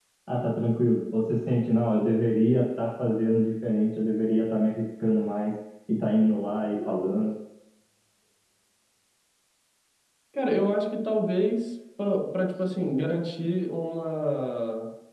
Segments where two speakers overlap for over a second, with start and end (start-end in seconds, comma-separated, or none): none